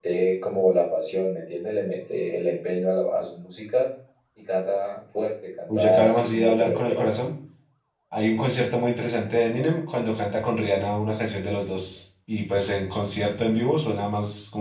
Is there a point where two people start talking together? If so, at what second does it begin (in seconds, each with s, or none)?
5.7 s